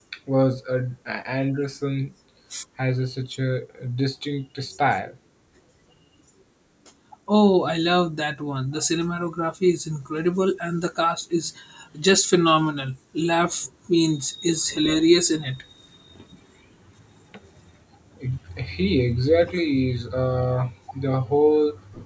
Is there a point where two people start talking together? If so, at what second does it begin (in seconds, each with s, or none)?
none